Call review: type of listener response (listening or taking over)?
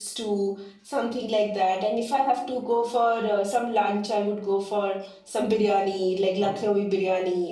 listening